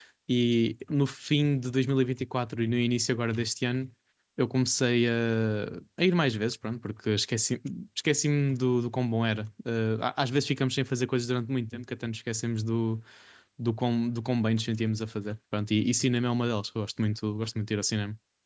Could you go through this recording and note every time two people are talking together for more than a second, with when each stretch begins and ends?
none

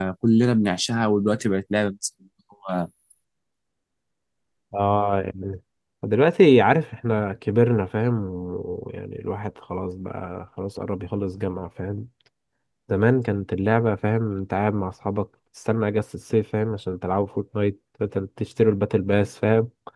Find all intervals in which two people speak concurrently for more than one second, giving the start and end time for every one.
none

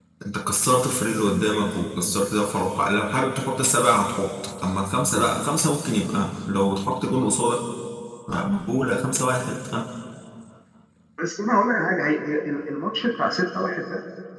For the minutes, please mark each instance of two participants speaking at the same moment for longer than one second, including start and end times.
none

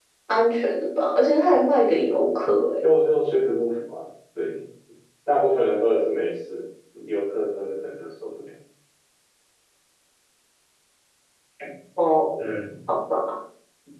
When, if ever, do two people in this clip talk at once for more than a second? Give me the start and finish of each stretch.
none

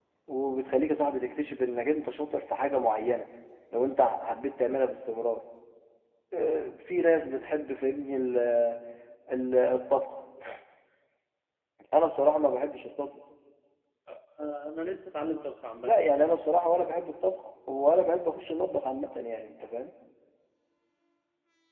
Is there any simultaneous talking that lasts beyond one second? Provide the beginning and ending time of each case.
none

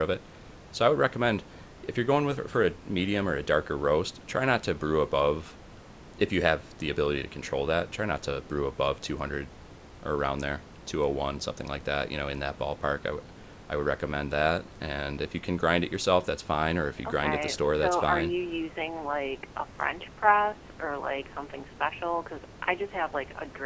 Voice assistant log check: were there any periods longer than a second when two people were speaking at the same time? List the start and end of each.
17.1-18.3

